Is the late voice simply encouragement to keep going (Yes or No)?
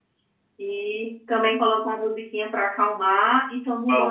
Yes